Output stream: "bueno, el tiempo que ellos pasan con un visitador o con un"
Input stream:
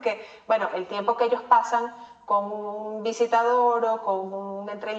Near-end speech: none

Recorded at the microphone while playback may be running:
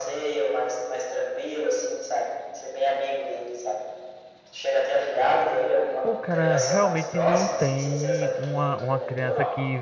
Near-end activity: present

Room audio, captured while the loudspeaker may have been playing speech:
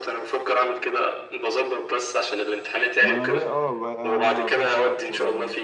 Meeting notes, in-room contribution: present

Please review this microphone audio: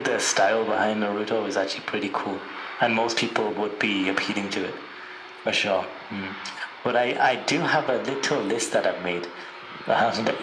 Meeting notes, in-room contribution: none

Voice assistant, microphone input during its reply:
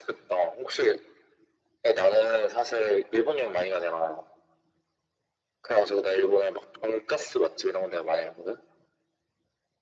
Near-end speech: none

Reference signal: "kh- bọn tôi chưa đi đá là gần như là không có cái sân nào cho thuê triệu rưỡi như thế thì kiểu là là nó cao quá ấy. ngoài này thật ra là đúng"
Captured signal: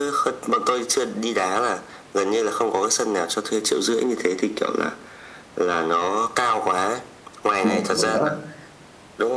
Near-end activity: present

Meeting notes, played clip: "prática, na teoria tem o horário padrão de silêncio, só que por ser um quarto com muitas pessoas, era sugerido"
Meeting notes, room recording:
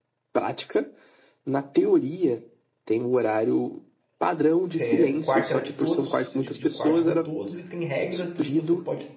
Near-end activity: present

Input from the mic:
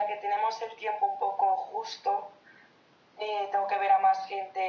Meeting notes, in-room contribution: none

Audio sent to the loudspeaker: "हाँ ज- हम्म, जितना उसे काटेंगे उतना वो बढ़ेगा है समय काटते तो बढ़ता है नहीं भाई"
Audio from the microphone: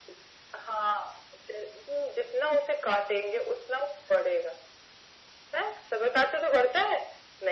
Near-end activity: none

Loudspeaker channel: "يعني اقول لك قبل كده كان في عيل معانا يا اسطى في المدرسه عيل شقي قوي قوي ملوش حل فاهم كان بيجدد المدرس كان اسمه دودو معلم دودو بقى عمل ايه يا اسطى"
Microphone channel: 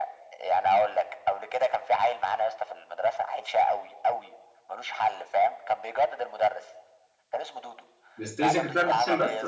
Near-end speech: present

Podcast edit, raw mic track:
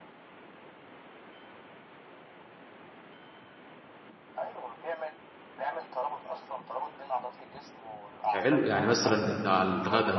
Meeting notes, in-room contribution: present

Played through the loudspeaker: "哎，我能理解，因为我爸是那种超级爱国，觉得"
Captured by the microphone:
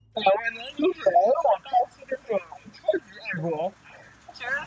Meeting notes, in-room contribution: none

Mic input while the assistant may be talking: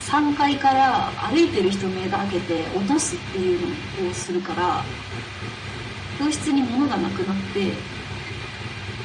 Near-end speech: none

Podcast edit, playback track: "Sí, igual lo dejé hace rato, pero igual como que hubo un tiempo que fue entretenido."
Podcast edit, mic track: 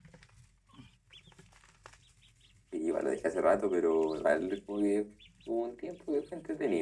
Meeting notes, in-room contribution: none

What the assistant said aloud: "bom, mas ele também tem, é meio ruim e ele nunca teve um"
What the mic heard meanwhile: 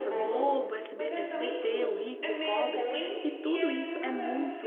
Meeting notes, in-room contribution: present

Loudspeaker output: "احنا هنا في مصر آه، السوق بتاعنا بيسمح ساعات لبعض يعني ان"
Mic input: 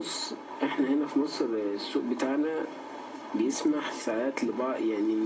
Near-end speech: none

